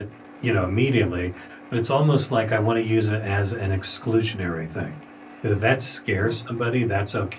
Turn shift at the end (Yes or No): No